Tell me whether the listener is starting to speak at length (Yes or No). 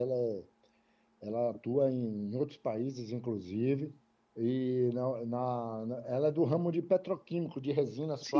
Yes